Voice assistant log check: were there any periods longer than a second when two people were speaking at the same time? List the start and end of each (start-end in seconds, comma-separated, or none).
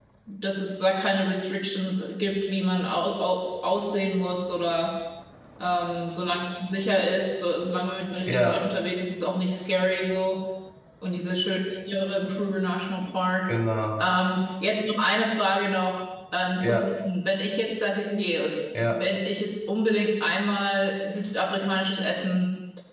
none